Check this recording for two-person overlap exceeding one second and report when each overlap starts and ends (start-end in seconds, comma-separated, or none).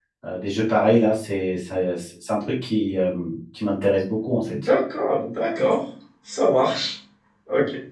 none